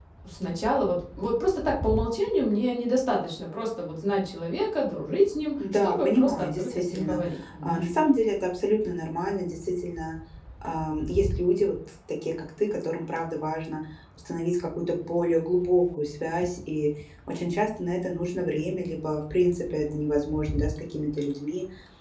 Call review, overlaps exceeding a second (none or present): present